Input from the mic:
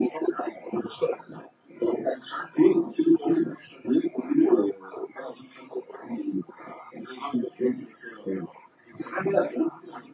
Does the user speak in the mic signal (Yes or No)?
No